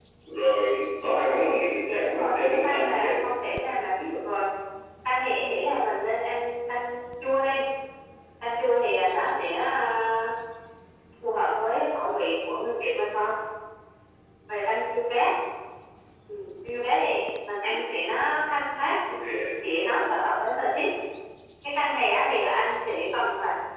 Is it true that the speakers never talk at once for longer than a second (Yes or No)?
No